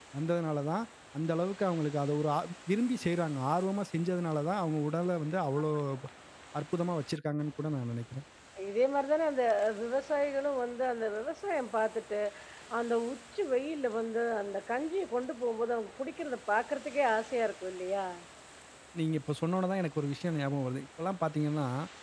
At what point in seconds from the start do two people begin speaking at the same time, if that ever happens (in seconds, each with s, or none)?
none